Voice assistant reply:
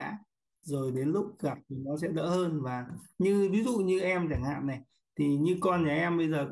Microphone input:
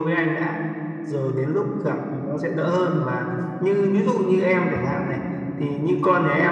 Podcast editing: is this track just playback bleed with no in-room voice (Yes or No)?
Yes